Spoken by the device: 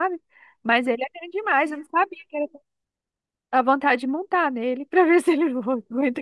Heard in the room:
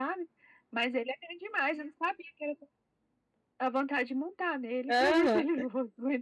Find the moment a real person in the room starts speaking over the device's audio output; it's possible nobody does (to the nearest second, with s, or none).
5 s